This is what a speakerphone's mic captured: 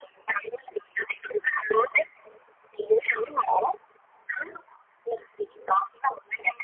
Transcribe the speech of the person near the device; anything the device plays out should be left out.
none

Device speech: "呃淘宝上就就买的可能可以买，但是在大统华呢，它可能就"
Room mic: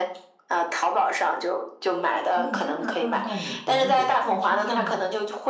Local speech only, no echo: 哦，所以加拿大到美国也需要签证吗？

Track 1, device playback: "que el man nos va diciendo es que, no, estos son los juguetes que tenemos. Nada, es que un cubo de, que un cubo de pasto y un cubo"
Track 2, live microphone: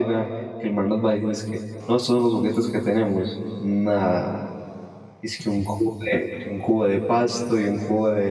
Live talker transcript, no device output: none

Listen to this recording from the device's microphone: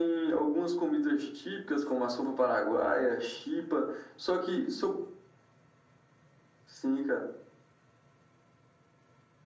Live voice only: none

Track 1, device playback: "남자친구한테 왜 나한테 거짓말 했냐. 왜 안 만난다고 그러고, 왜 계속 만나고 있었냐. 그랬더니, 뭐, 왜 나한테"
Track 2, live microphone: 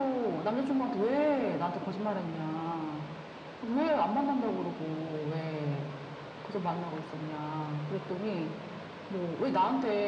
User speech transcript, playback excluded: none

